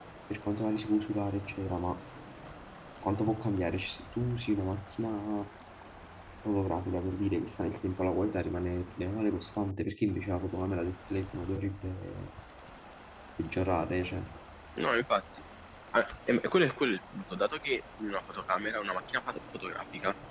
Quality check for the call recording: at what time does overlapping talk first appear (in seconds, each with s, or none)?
none